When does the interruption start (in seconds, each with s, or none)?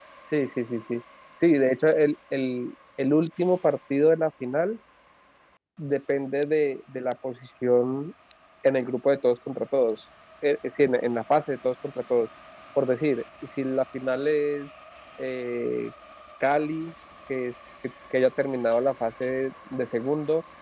none